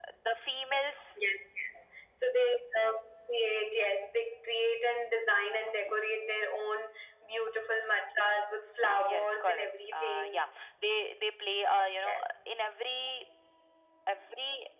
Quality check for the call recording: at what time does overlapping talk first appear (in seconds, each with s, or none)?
8.9 s